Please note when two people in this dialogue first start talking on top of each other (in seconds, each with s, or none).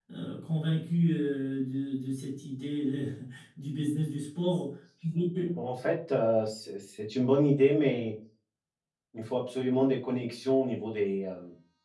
none